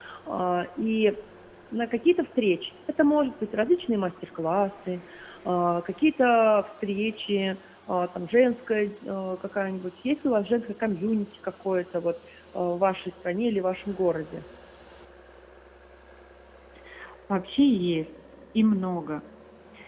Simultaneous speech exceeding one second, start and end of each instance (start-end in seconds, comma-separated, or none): none